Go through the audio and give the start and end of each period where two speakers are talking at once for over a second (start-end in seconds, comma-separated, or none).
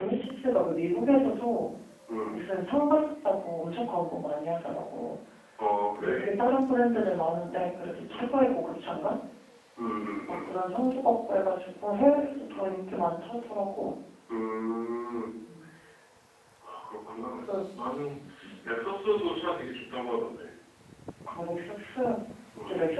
none